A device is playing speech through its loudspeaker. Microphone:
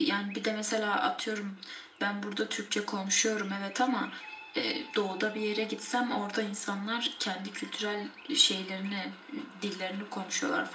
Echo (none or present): present